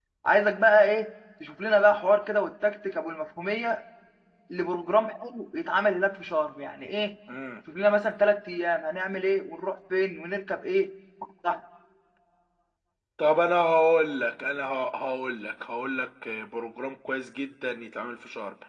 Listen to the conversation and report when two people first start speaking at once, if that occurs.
none

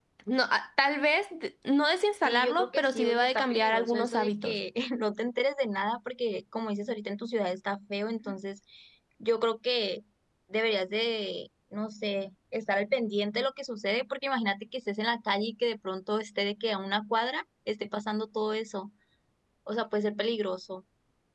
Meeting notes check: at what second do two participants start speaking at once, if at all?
2.2 s

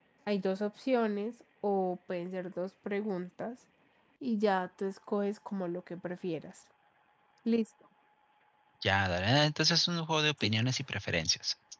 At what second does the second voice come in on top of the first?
none

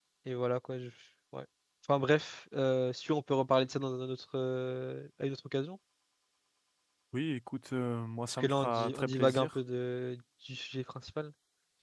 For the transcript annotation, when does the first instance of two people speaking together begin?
8.3 s

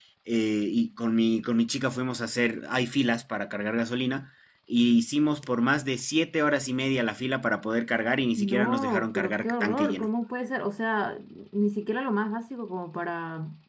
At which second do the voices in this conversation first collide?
8.3 s

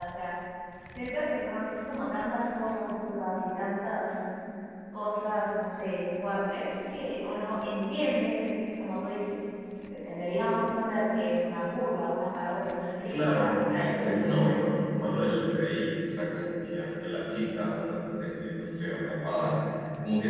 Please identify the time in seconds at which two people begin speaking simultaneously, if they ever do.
13.1 s

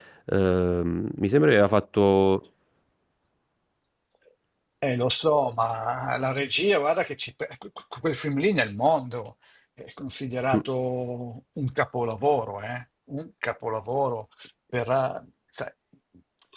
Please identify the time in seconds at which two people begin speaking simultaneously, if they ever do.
none

